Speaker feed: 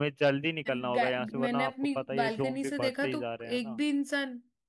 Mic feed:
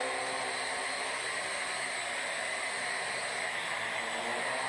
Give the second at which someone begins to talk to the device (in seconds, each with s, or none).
none